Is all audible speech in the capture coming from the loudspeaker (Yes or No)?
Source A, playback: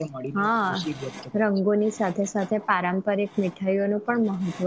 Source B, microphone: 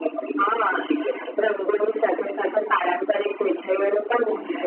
Yes